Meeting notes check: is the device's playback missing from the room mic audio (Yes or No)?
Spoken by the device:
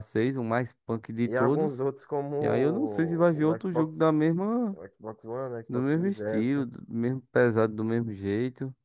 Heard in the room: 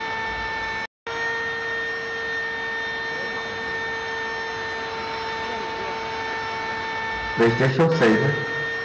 Yes